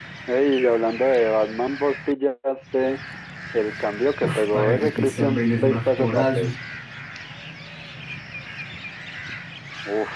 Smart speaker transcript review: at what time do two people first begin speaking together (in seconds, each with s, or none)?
4.2 s